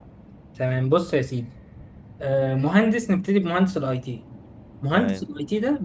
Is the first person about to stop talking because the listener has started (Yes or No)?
No